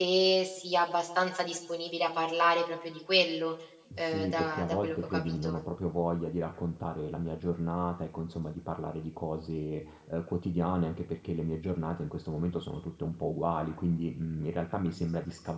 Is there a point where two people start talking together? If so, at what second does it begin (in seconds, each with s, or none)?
4.0 s